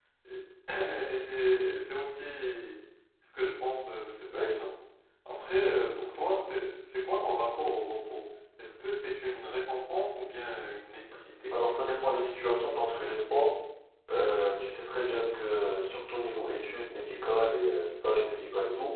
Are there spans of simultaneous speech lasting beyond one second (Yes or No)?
No